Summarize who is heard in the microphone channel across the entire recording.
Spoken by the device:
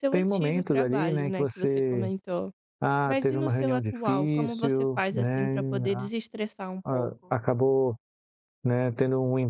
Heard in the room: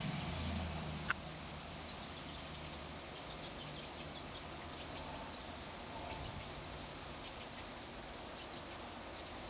neither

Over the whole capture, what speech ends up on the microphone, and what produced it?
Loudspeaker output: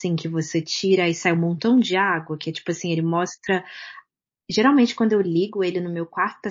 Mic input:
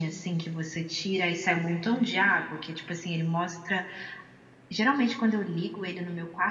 echo only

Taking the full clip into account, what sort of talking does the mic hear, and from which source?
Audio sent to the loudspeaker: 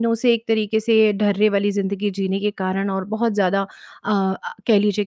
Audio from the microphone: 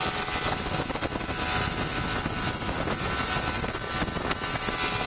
neither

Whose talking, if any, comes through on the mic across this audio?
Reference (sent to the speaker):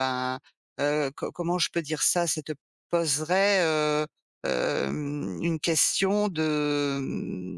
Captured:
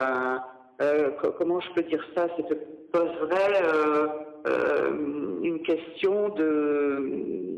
echo only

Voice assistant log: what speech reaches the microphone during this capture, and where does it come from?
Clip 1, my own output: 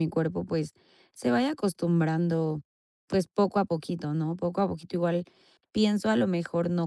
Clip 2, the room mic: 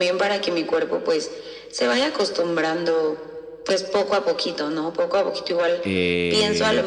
both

